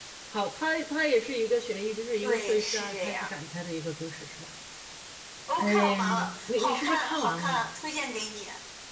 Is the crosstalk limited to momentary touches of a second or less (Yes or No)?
No